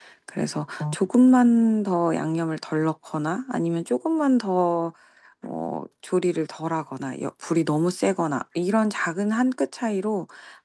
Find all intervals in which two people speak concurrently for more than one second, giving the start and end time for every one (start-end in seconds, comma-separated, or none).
none